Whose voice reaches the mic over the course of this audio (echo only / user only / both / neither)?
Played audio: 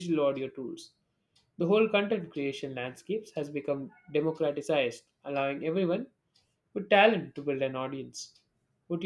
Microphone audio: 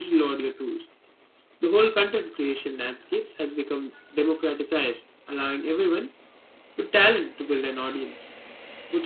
echo only